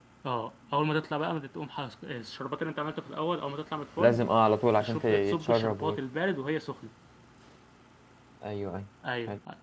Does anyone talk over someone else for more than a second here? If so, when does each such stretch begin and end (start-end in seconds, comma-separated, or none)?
4.8-6.0